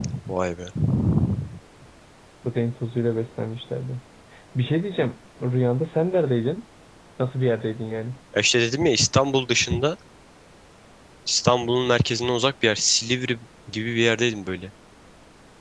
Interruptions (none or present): none